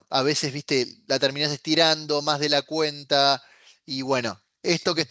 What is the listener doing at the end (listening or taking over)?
listening